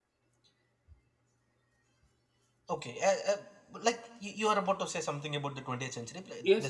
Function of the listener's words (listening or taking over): taking over